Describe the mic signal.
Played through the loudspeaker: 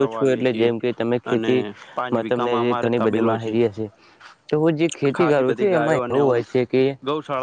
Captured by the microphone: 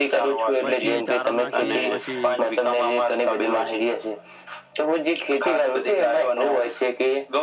both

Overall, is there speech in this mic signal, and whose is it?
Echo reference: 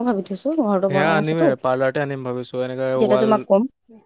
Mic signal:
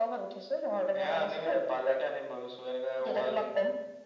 echo only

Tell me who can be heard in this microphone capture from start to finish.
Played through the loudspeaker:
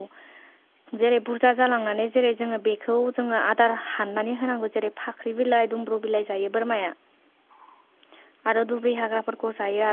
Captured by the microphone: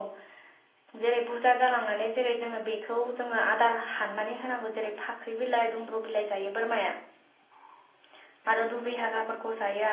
echo only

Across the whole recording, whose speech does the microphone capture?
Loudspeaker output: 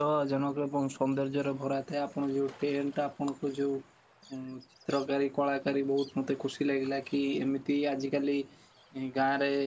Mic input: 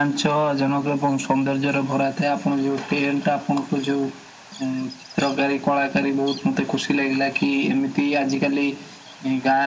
echo only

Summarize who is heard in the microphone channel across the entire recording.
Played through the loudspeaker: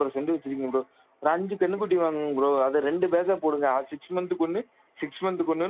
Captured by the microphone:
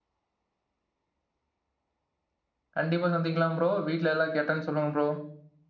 user only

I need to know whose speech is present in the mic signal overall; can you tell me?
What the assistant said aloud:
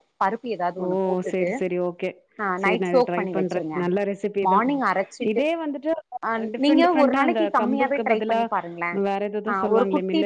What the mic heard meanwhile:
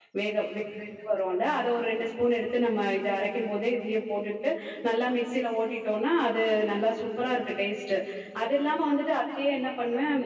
user only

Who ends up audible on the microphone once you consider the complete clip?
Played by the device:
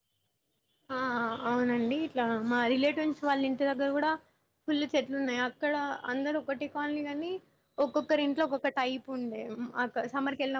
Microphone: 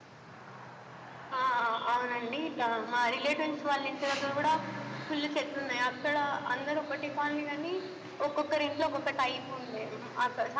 echo only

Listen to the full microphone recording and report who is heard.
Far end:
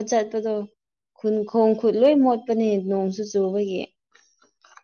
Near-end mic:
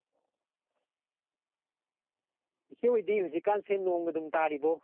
user only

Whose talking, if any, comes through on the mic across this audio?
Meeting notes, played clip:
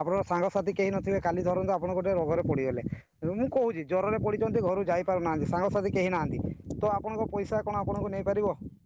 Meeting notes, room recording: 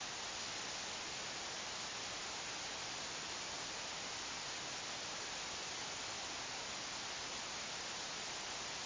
neither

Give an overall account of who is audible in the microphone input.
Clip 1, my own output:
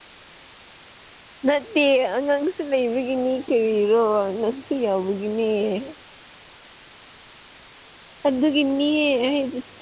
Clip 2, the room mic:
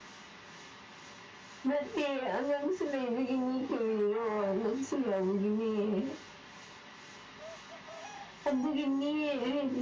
echo only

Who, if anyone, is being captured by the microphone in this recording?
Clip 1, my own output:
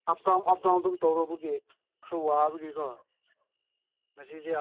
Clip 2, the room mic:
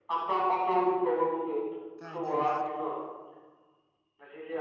both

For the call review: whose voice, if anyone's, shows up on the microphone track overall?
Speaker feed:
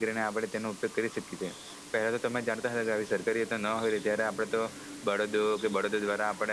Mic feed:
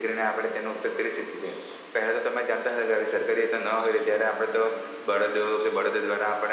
echo only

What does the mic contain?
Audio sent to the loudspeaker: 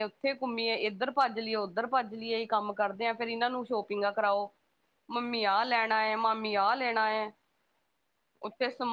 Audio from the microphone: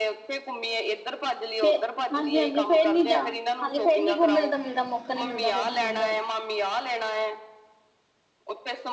both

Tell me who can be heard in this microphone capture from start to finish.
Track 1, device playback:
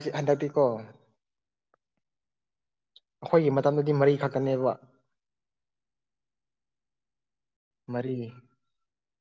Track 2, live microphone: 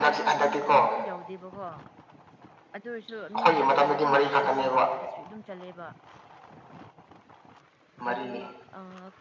both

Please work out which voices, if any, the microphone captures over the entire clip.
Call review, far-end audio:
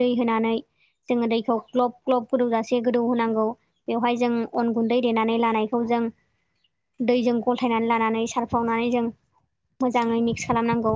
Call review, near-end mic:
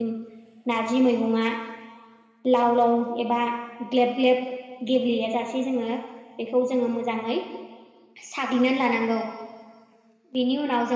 user only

